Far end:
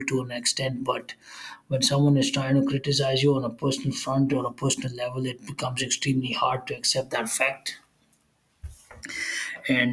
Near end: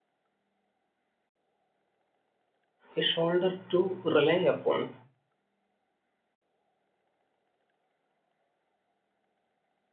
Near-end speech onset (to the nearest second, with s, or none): 3 s